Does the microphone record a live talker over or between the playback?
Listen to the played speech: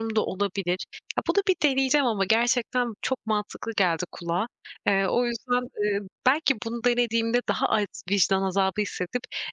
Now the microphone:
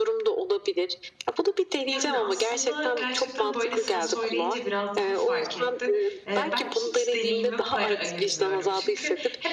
Yes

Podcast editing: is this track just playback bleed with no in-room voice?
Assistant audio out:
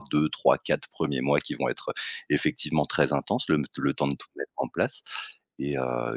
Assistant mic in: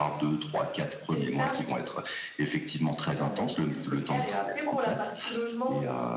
No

